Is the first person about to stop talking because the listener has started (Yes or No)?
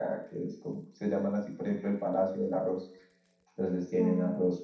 No